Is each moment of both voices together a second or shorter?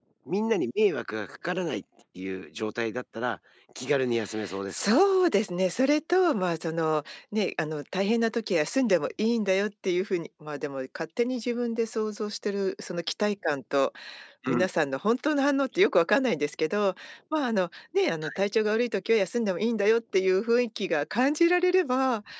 Yes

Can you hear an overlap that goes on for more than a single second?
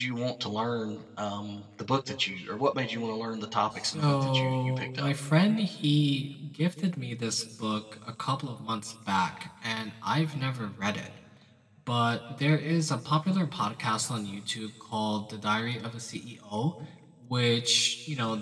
Yes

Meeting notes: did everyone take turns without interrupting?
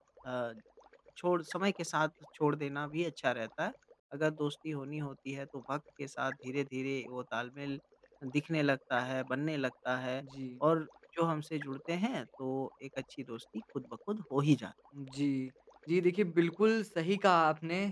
Yes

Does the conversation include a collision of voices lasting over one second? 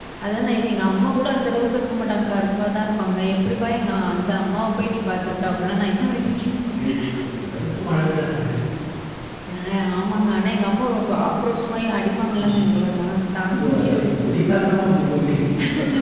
No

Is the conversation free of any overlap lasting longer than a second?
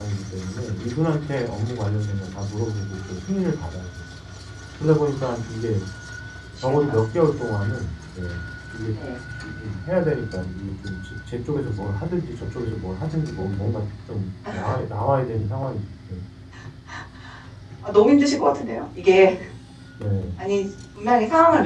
Yes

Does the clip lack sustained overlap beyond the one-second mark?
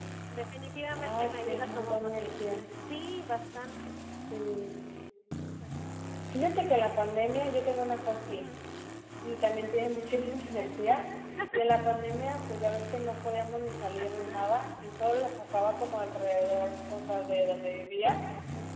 No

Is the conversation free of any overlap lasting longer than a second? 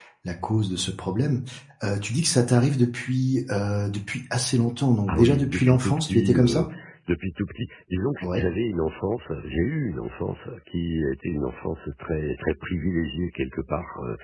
No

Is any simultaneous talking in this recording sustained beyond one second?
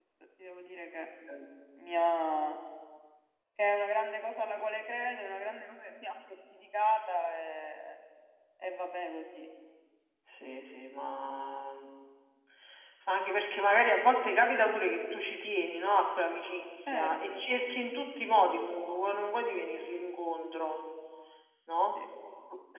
No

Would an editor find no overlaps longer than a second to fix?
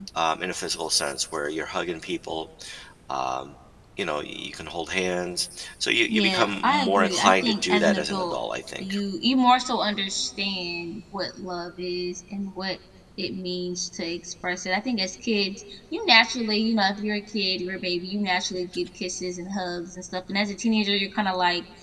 No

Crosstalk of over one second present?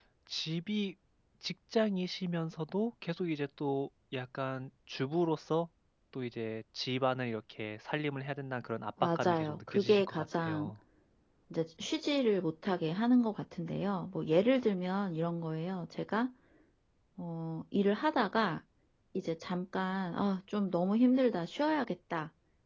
Yes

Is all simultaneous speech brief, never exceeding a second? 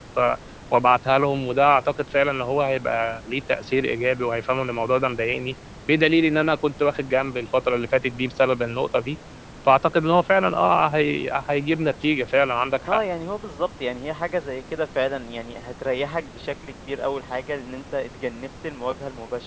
Yes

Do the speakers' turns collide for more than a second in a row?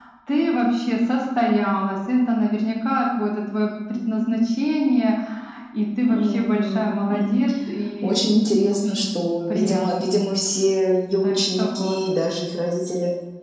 Yes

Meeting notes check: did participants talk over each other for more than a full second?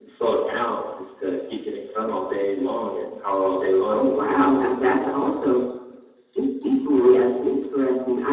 No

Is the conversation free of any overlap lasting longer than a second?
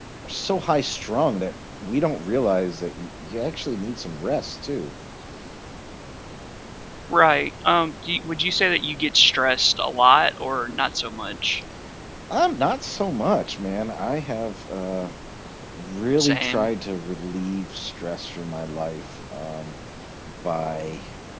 Yes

